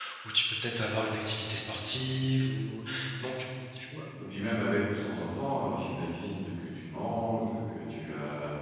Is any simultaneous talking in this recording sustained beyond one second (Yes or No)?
No